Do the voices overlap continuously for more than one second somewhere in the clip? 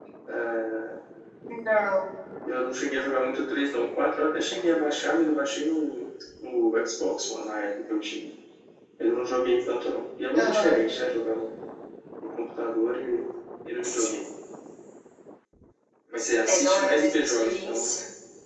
Yes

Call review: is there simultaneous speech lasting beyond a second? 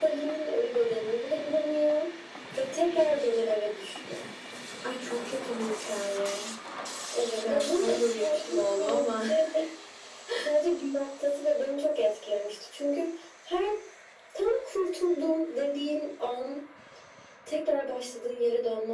Yes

